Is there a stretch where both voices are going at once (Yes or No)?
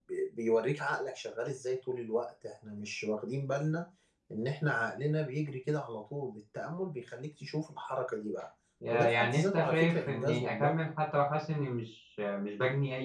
Yes